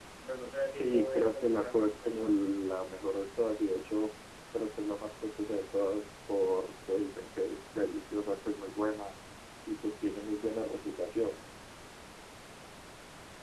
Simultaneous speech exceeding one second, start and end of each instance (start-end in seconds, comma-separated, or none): 0.7-2.3